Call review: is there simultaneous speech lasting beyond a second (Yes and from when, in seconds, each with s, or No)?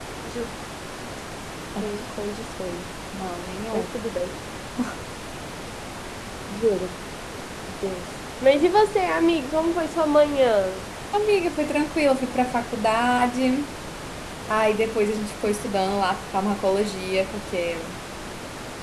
No